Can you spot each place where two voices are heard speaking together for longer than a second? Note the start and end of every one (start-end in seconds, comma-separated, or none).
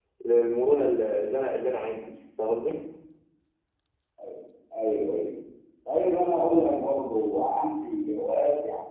none